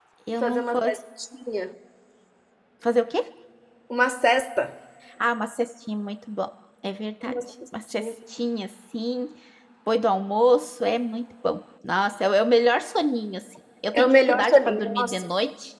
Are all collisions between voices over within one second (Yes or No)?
No